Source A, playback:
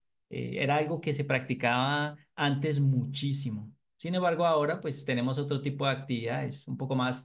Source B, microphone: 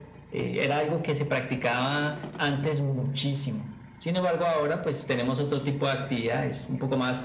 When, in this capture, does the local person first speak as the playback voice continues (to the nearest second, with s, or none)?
none